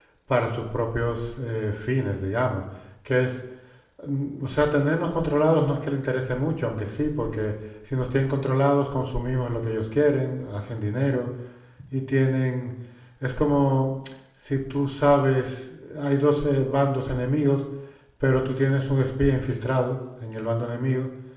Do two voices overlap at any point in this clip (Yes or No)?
No